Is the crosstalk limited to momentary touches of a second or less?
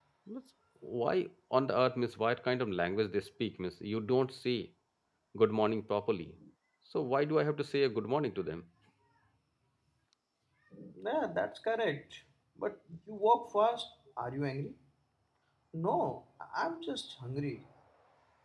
Yes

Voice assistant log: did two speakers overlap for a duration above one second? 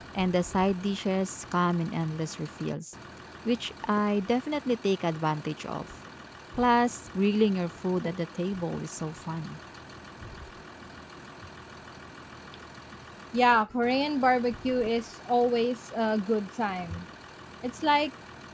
No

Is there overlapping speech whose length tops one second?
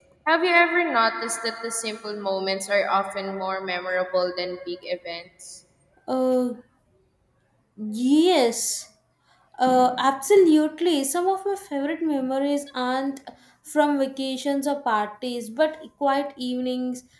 No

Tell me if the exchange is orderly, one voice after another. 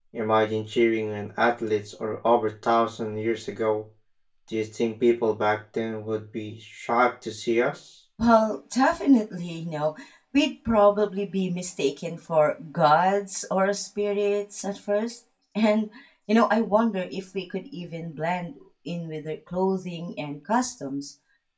Yes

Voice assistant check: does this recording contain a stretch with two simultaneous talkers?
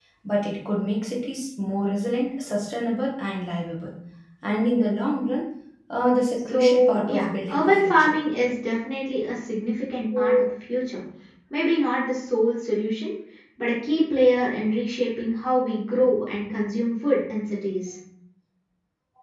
Yes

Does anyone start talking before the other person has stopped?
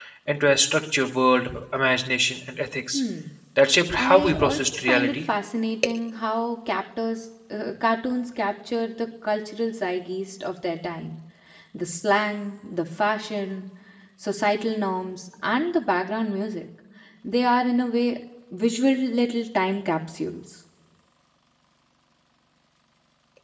Yes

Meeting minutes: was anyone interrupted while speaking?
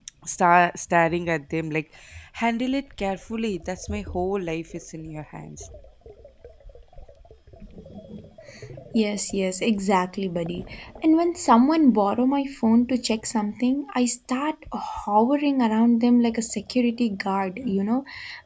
No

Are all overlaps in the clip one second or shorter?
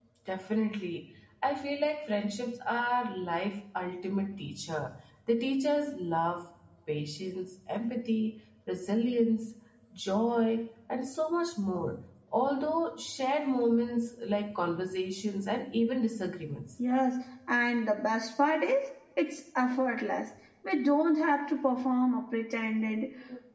Yes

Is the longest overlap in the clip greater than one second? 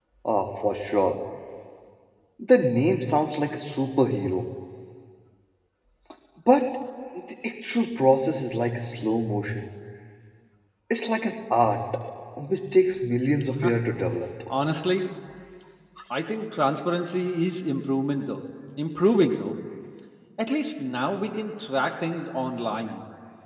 No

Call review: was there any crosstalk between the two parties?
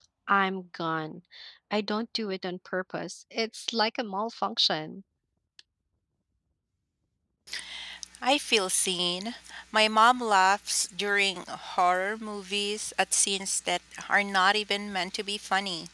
No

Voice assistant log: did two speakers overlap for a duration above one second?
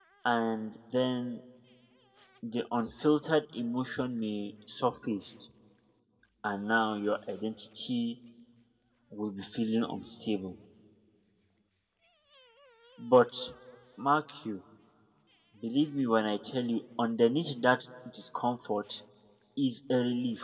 No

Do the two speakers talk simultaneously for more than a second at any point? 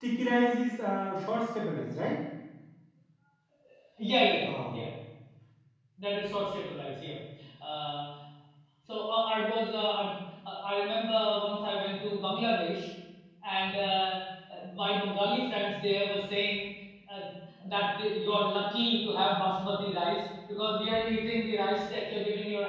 No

